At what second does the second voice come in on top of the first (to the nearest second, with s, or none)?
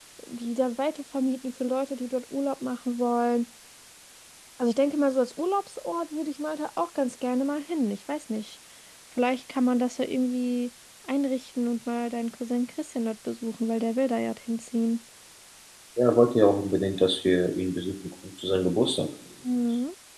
none